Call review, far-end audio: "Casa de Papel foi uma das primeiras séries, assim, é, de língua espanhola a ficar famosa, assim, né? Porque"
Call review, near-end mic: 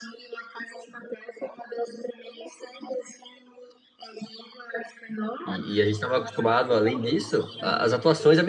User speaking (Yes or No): Yes